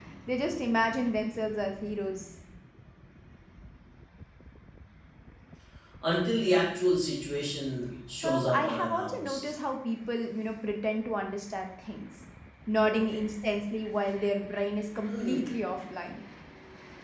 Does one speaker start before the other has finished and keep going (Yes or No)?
Yes